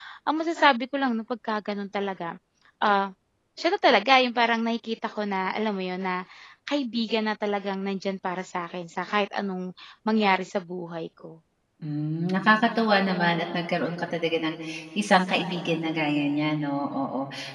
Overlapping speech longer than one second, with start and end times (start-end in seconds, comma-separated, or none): none